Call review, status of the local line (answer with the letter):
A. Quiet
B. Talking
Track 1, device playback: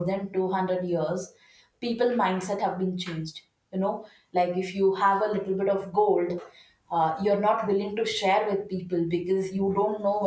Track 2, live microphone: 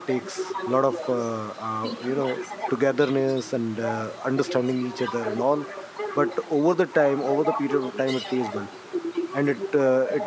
B